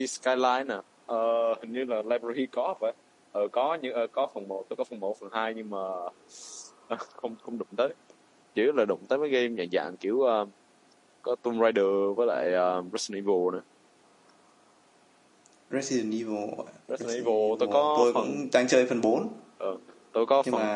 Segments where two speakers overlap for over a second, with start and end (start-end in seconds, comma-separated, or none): 17.0-18.4